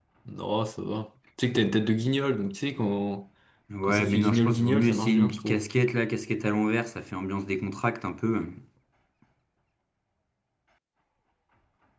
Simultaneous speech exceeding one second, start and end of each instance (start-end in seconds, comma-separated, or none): 3.8-5.6